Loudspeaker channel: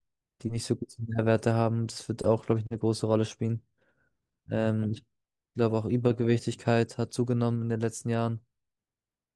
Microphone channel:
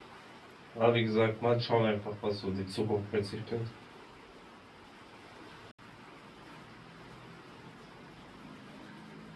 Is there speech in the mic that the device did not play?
Yes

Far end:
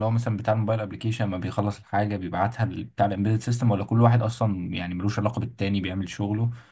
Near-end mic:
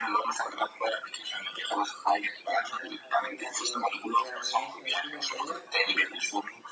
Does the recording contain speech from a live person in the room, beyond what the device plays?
Yes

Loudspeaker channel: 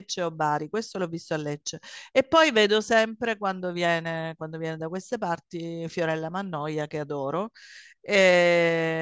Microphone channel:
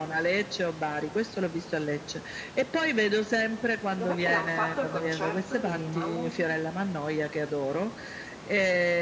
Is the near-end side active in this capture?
Yes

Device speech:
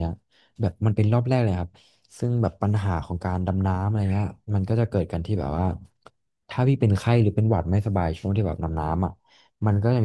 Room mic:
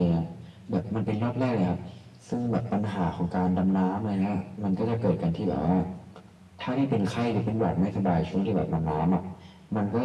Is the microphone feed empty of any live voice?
Yes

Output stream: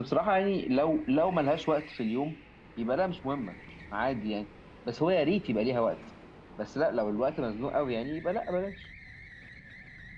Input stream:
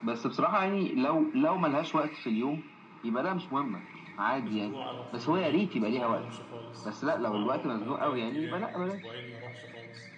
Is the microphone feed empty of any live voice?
No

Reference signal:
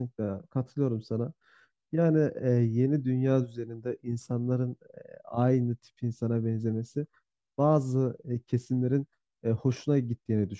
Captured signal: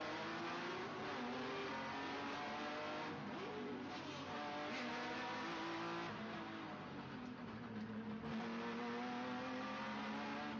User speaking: No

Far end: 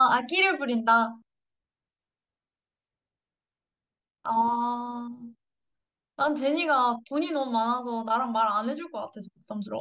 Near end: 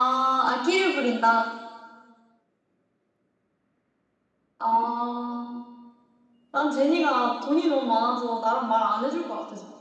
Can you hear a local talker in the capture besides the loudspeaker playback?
No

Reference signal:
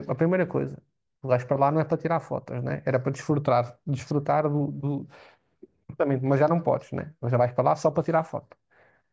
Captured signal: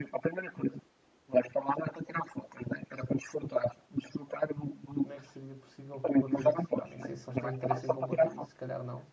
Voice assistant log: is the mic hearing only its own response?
No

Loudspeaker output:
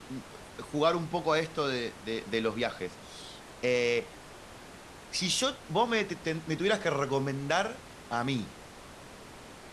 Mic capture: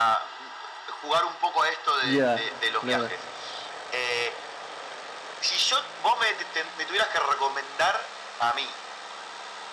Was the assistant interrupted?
Yes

